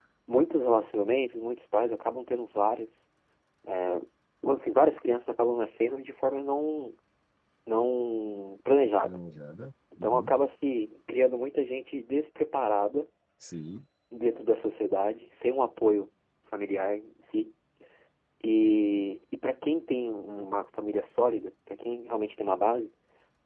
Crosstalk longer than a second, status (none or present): none